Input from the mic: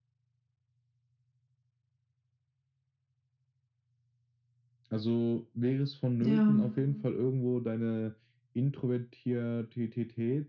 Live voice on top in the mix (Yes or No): Yes